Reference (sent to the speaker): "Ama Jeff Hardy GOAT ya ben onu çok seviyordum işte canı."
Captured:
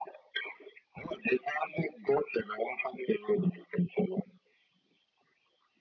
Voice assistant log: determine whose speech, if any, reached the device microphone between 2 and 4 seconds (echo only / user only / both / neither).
echo only